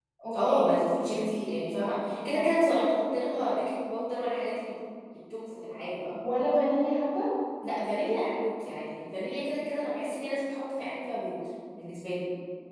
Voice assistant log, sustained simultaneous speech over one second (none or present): none